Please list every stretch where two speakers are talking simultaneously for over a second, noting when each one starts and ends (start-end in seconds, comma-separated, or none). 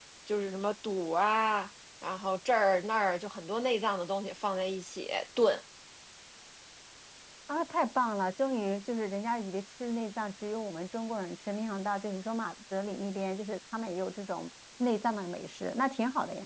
none